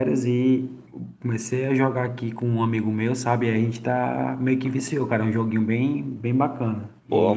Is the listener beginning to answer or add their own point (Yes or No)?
Yes